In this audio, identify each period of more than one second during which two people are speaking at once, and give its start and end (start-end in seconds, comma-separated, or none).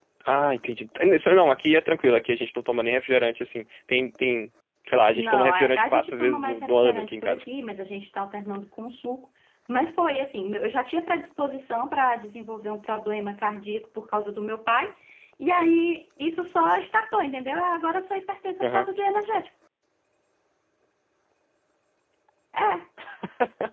5.1-7.4